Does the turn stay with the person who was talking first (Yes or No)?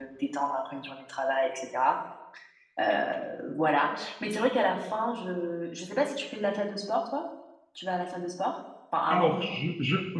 No